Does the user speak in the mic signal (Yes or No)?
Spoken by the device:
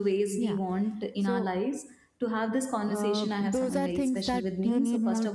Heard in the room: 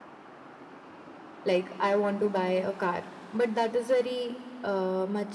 Yes